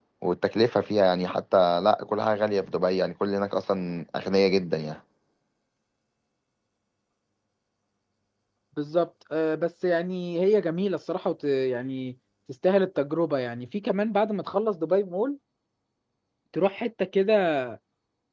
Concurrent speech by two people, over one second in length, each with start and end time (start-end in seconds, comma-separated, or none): none